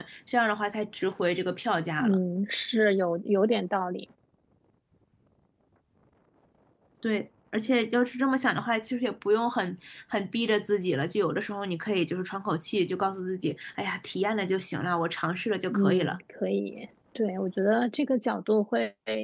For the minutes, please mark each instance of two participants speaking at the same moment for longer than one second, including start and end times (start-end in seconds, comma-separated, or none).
none